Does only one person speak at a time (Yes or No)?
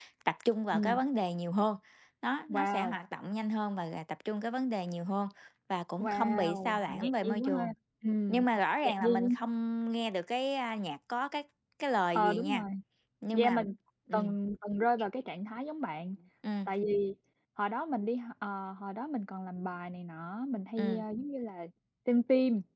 No